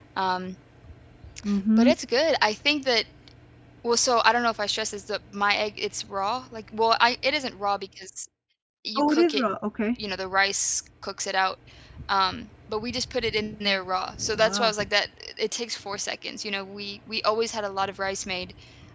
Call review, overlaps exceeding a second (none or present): none